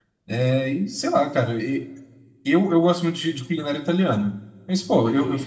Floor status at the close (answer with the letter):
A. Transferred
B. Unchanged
B